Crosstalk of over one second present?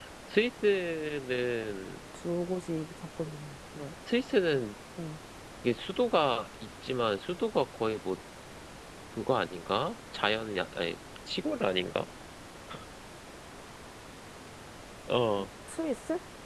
No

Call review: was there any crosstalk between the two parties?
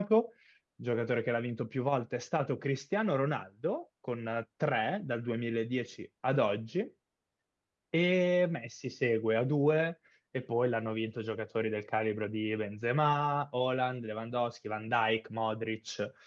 No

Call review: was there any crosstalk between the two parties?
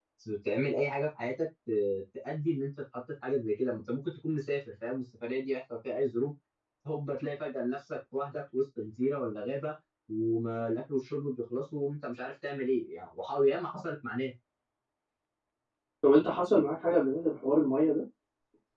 No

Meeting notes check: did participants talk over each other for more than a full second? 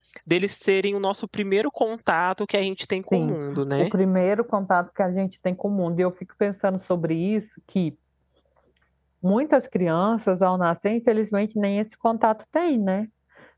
No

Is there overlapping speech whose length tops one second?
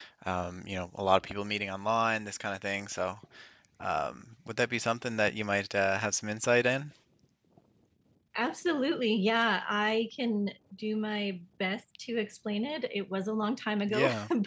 No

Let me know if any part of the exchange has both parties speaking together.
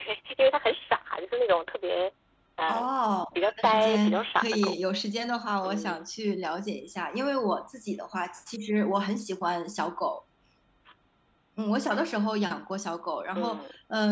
Yes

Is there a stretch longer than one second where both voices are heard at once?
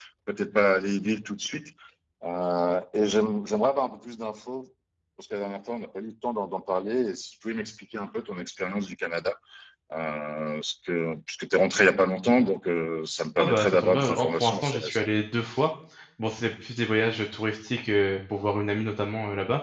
Yes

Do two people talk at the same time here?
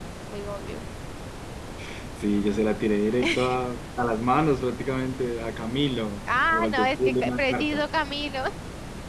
Yes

